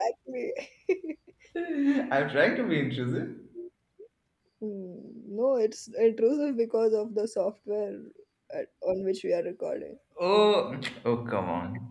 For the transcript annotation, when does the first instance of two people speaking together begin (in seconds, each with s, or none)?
none